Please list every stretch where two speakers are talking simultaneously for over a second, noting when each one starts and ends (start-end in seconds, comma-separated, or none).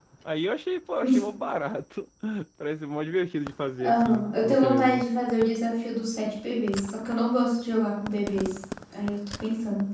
3.8-5.0